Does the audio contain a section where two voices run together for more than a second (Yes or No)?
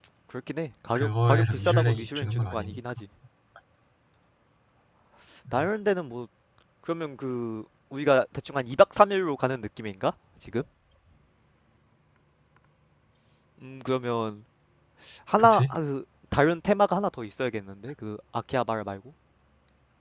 Yes